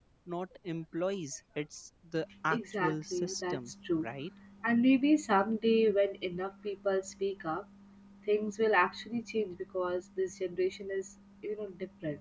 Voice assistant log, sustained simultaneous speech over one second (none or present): present